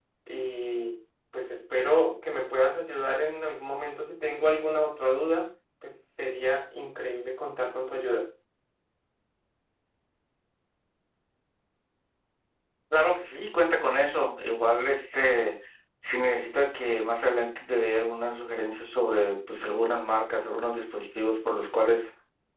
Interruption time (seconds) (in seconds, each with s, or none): none